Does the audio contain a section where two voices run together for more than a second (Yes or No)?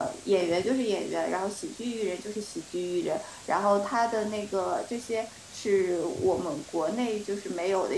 No